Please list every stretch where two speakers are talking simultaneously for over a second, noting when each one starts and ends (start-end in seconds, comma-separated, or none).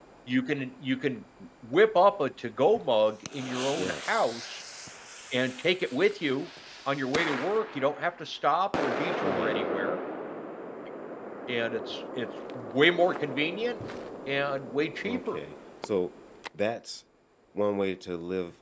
none